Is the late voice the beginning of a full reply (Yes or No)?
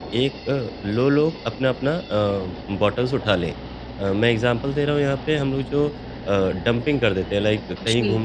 No